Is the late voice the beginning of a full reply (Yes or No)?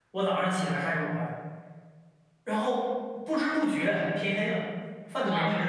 Yes